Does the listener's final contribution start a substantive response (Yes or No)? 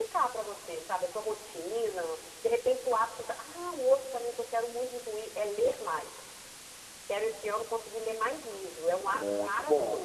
Yes